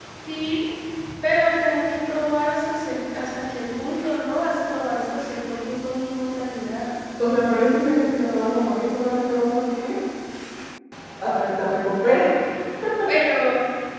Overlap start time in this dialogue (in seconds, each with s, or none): none